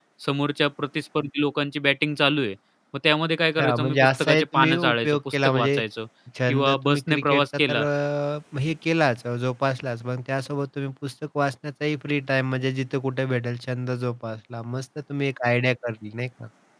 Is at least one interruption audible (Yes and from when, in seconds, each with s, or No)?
Yes, from 3.6 s